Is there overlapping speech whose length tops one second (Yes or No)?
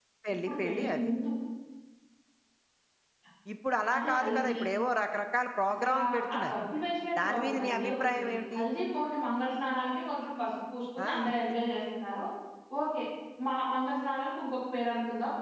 Yes